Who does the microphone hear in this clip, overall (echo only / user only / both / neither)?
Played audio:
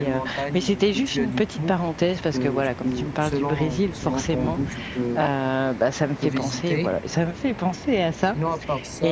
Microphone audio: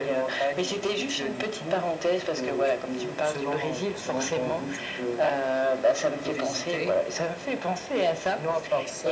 echo only